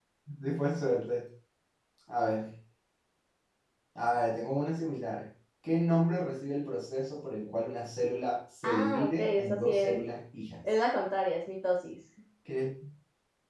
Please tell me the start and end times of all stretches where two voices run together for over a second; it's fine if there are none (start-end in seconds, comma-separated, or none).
8.6-10.0